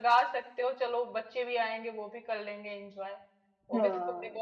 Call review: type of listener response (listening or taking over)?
listening